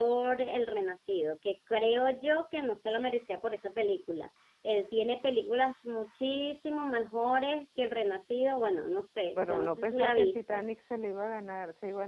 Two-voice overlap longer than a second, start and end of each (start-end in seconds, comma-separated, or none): 9.3-10.6